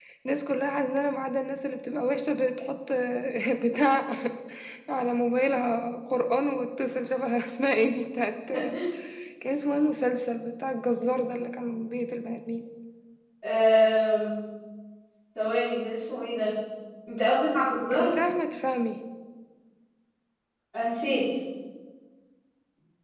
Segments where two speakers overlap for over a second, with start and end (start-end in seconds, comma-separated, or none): none